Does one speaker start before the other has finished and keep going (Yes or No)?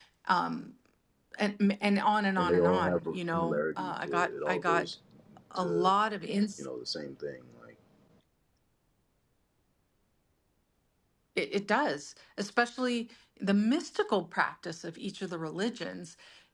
Yes